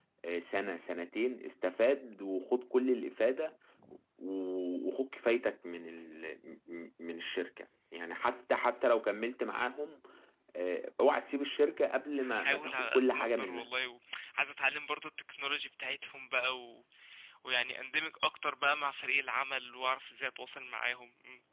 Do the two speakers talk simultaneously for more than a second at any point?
Yes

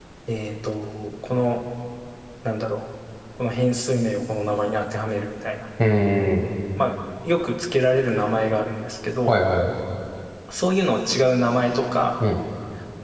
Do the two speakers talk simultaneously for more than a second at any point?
No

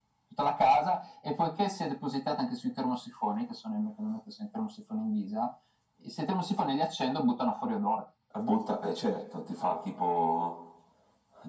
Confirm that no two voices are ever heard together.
Yes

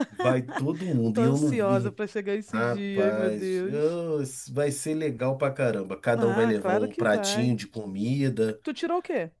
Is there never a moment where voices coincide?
No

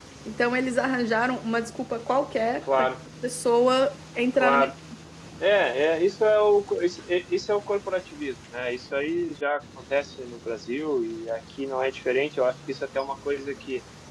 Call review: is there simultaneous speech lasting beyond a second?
No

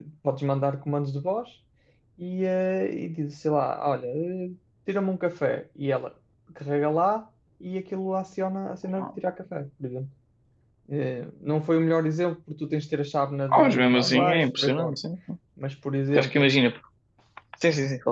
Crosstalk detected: Yes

